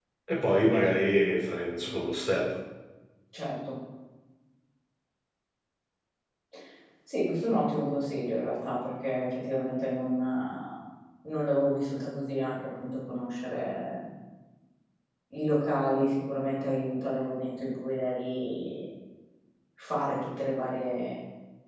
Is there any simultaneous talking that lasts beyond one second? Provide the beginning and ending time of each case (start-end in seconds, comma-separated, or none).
none